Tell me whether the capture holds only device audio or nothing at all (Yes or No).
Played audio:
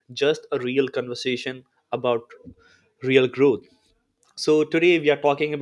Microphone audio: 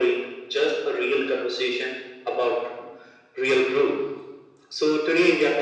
Yes